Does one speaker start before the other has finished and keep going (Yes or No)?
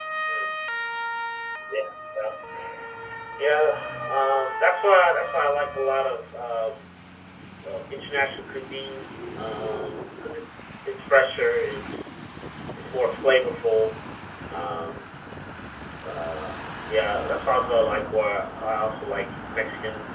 No